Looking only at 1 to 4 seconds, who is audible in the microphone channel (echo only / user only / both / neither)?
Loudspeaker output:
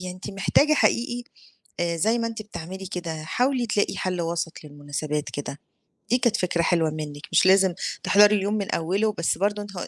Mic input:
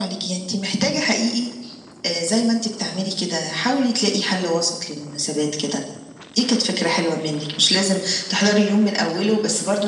echo only